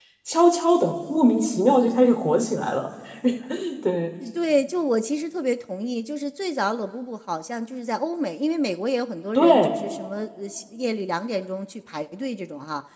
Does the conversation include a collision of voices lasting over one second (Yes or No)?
No